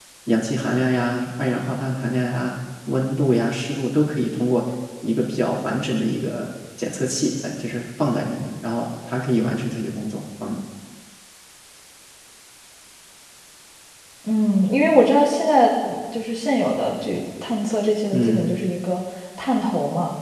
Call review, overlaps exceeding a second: none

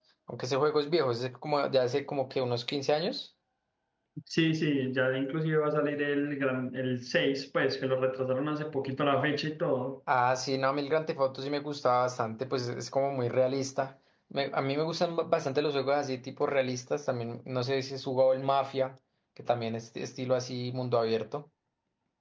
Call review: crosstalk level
none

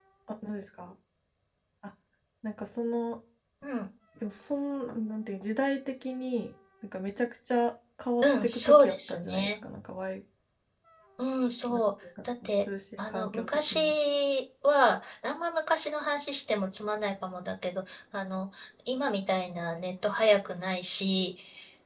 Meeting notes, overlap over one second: present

